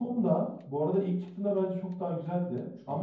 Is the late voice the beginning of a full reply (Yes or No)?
No